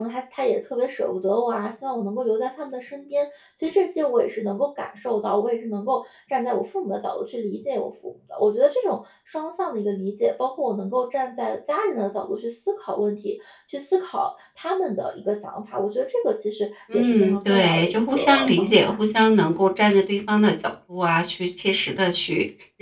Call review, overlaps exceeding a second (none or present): present